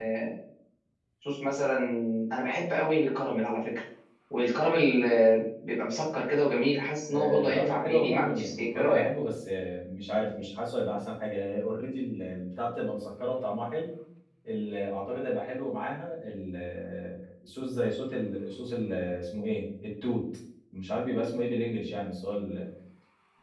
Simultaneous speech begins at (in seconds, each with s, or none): 7.1 s